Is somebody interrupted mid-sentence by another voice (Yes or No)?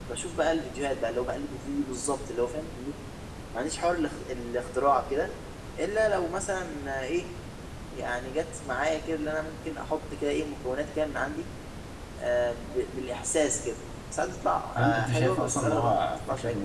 Yes